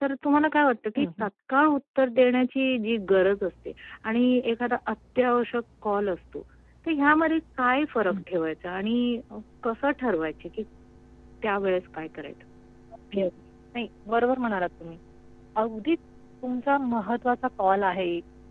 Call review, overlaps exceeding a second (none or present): none